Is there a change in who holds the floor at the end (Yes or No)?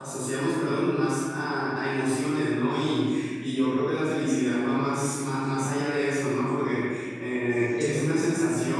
No